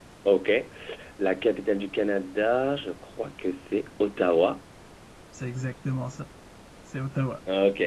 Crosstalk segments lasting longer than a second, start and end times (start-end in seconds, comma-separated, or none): none